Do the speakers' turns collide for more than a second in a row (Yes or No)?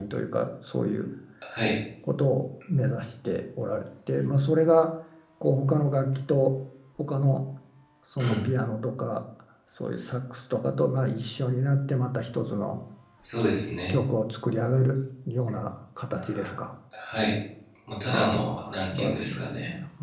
Yes